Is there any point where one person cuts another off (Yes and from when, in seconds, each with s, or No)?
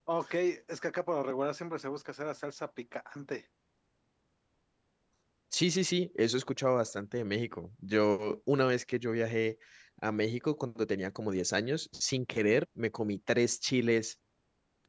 No